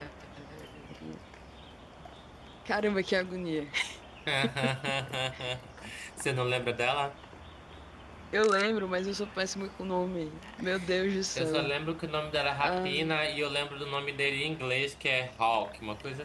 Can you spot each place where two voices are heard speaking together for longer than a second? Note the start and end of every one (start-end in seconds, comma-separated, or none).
none